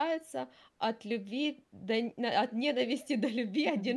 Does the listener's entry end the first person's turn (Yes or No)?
Yes